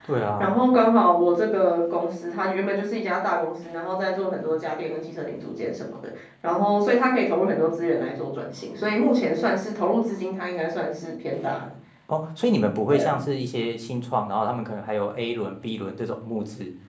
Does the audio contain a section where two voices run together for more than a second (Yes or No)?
No